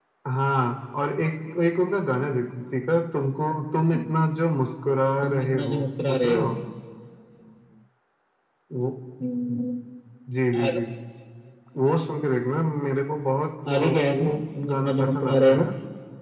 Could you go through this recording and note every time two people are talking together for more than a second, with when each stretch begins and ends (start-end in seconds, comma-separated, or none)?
5.2-6.5, 13.7-15.7